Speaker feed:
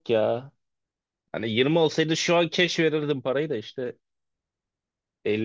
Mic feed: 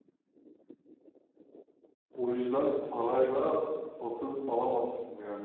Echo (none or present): none